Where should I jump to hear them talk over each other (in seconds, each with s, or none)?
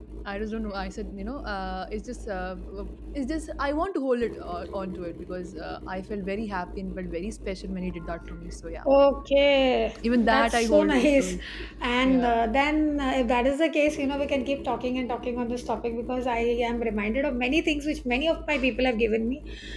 10.0 s